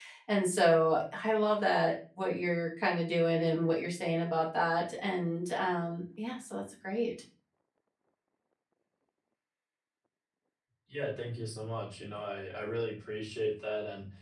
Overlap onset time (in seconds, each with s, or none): none